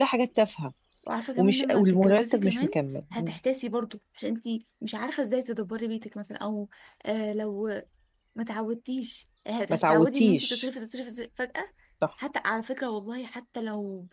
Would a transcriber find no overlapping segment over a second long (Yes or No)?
No